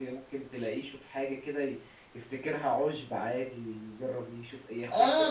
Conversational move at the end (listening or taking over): taking over